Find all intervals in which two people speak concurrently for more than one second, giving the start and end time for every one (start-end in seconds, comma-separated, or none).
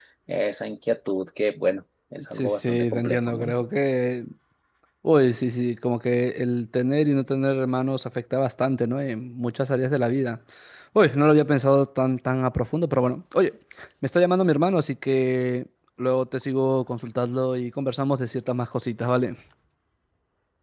2.3-3.5